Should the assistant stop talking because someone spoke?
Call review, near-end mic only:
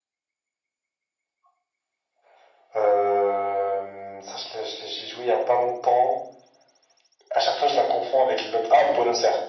No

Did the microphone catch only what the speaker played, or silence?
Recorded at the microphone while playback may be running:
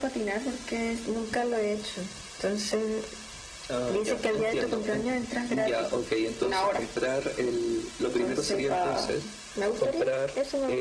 Yes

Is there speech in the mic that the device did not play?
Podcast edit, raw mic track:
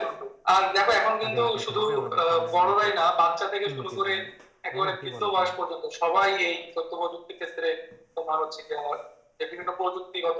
Yes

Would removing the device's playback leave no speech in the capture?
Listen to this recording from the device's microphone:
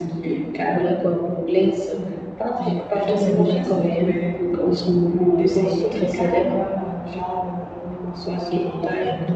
Yes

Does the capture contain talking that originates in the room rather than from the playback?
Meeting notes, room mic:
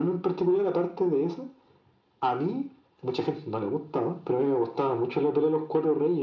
No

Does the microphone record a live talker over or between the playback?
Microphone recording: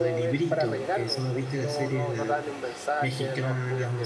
Yes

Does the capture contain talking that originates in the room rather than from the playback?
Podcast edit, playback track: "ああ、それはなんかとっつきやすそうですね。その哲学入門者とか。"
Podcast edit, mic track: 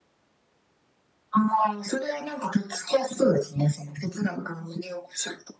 No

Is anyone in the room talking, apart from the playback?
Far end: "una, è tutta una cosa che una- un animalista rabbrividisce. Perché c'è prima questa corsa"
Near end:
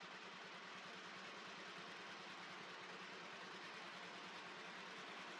No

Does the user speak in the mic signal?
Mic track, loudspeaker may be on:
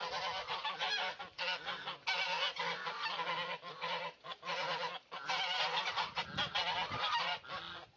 No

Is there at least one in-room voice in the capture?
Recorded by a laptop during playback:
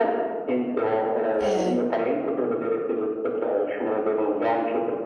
Yes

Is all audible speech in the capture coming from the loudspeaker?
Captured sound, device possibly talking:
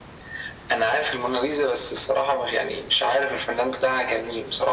Yes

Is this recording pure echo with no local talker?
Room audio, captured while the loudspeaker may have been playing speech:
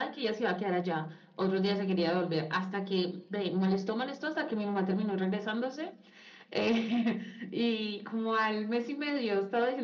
Yes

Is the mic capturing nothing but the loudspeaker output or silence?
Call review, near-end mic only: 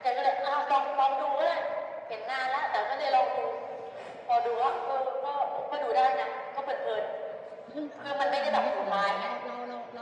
No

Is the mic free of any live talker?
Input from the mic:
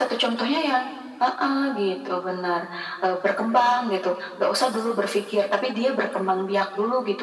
Yes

